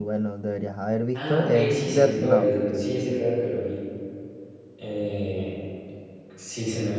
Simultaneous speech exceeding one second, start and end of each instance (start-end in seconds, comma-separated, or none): 1.1-2.5